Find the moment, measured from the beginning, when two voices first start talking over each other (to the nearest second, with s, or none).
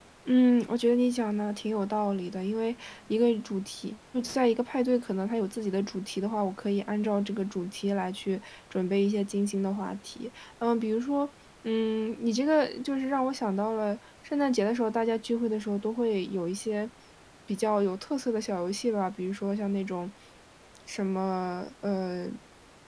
none